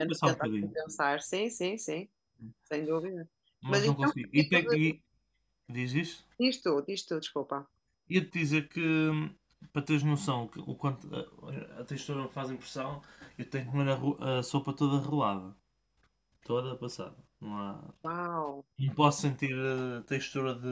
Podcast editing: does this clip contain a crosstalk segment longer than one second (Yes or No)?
Yes